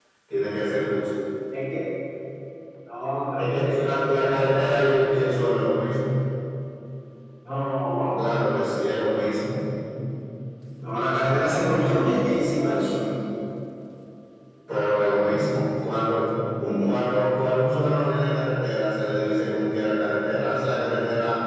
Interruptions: present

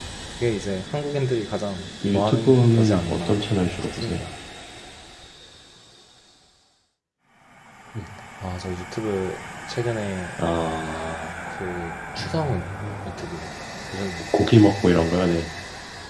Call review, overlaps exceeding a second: present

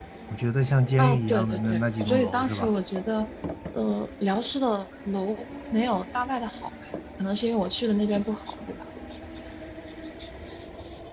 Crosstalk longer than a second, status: present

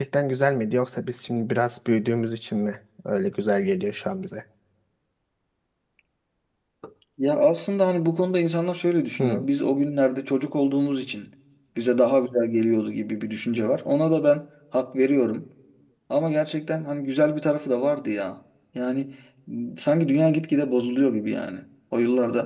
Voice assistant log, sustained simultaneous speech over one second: none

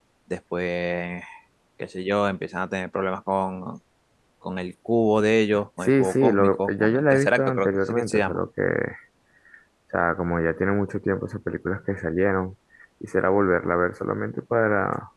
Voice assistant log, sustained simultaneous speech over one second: present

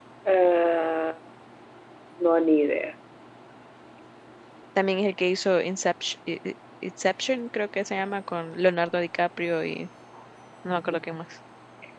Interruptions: none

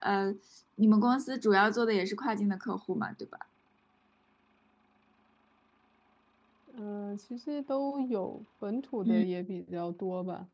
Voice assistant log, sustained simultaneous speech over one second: none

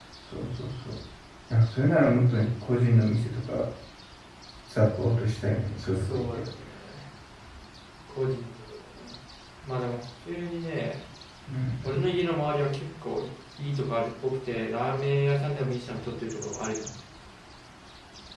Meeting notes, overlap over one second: none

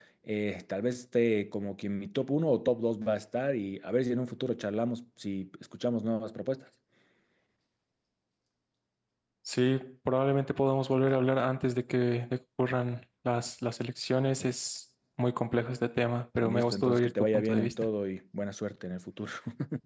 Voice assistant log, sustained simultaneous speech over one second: present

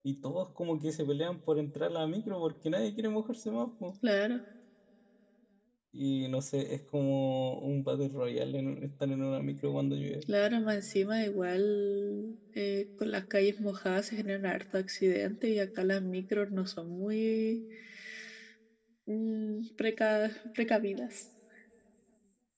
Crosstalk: none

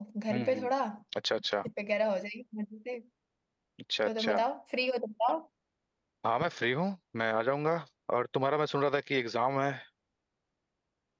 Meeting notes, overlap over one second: none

